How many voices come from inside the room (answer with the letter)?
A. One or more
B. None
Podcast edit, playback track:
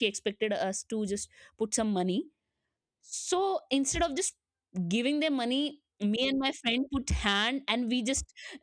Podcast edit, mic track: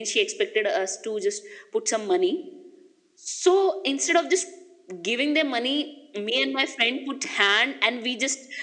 B